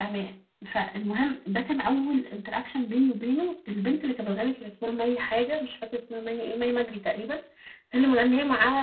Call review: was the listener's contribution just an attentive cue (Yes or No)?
Yes